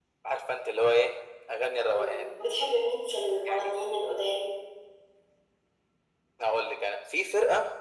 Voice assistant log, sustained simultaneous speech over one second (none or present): none